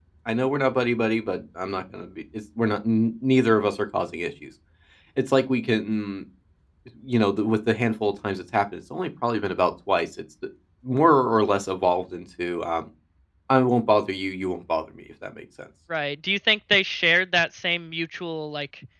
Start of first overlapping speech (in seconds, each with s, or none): none